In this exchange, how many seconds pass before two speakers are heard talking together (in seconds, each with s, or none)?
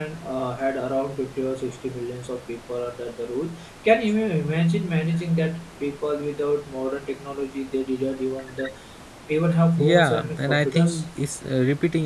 9.8 s